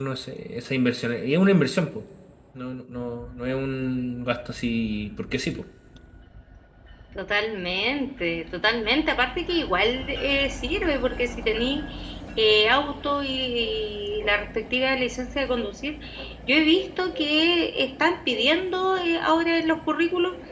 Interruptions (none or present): none